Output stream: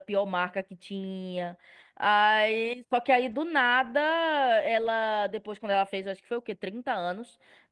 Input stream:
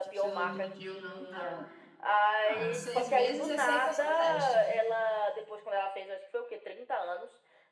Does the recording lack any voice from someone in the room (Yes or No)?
No